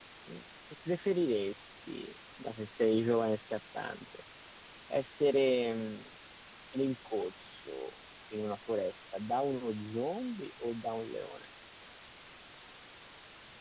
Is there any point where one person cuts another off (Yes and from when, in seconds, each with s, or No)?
No